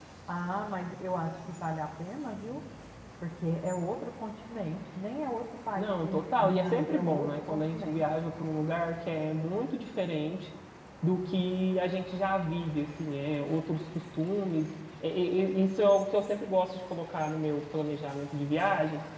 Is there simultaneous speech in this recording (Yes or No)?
Yes